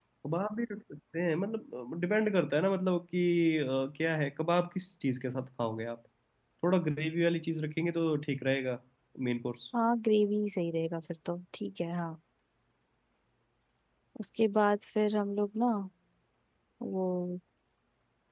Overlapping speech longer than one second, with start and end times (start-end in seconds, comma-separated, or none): none